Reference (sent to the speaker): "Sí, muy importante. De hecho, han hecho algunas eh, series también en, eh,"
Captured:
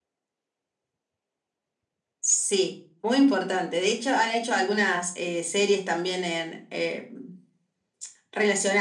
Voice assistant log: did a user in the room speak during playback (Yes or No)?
No